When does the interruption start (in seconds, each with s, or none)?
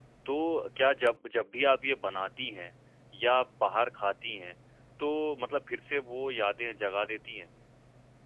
none